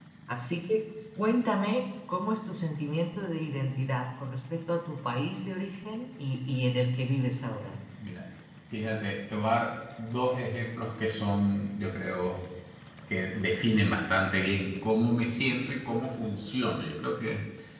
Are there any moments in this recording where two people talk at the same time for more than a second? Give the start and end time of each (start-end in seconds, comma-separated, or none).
none